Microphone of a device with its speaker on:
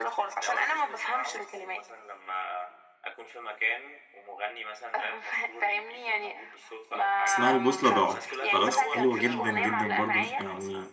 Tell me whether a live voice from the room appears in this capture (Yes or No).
Yes